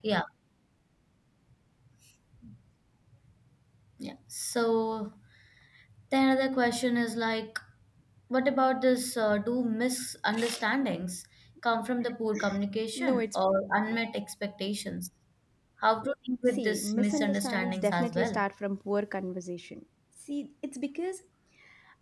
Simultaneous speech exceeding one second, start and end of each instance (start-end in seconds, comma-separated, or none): 16.4-18.4